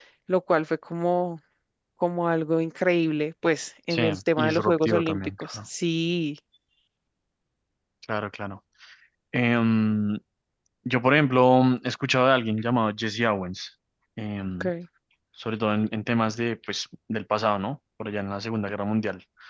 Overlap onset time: 3.9 s

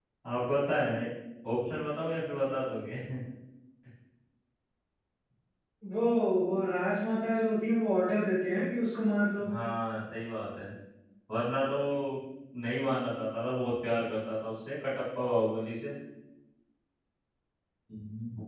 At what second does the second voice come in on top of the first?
none

